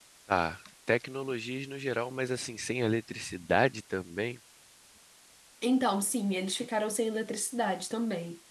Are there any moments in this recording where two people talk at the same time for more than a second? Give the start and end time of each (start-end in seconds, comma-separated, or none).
none